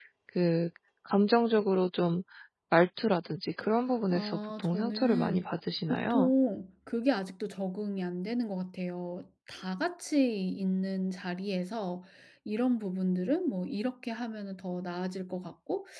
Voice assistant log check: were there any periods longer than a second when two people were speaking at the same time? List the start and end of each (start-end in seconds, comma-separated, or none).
4.1-5.4